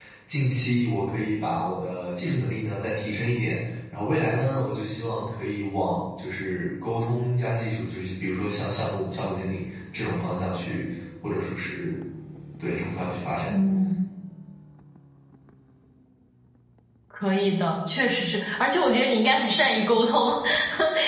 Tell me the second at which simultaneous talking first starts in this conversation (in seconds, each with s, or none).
none